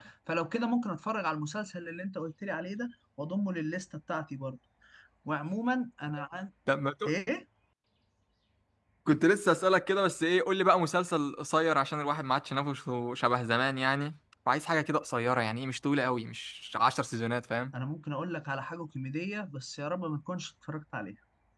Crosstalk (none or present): none